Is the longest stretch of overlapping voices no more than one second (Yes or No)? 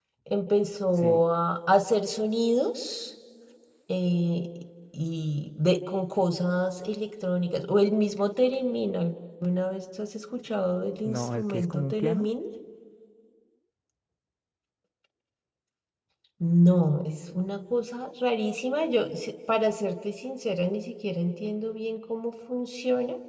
No